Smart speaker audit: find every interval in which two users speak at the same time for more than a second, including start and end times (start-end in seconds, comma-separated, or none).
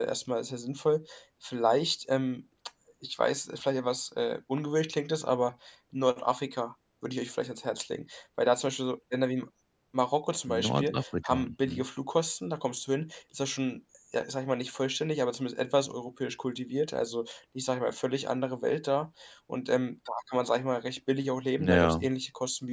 10.6-11.8